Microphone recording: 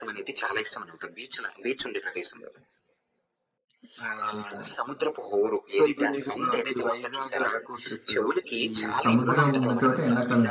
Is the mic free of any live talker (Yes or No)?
No